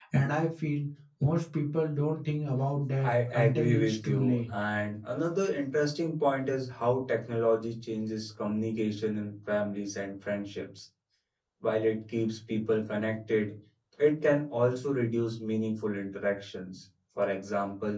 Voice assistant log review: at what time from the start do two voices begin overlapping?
3.0 s

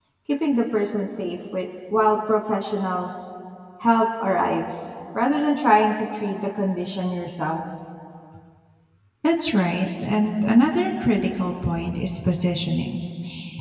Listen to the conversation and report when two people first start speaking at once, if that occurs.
none

